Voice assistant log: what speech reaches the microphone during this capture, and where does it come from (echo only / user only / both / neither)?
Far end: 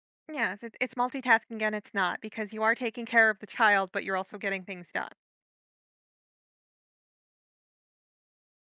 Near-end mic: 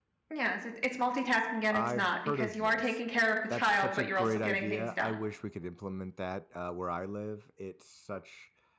both